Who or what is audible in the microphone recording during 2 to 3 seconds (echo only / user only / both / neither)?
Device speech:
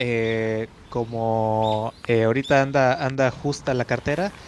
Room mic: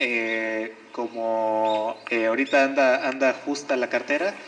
echo only